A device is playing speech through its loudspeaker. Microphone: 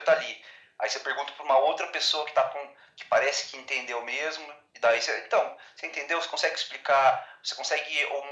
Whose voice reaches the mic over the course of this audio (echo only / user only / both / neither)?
echo only